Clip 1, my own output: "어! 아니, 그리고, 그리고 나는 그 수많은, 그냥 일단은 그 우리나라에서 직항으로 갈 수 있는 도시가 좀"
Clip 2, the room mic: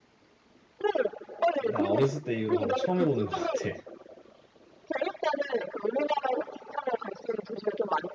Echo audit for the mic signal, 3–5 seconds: both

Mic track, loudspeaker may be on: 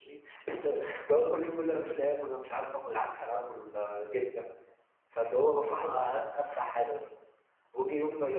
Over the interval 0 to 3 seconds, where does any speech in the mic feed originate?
user only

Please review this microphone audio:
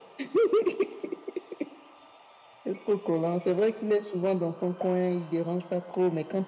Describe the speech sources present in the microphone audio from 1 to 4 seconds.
echo only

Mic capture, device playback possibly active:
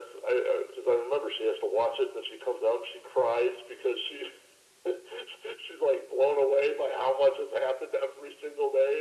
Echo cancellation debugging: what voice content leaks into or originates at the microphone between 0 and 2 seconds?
echo only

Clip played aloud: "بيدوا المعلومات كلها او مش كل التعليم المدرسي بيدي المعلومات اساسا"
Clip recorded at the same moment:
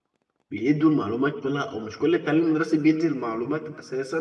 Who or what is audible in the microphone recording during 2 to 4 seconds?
echo only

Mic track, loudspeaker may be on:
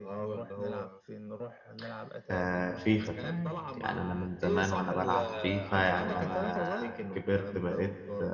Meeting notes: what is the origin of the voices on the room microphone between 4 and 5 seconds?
both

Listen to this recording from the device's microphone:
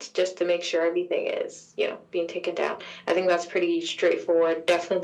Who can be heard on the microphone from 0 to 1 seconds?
echo only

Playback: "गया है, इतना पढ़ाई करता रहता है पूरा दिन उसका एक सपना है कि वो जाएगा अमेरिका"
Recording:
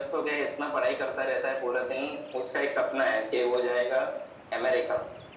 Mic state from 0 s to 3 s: echo only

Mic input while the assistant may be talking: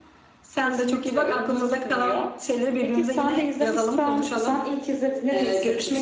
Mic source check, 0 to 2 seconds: echo only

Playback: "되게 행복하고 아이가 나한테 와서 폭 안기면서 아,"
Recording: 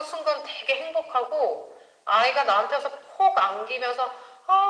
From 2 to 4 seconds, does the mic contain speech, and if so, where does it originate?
echo only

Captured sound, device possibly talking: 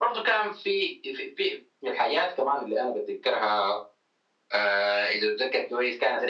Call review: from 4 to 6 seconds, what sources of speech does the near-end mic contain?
echo only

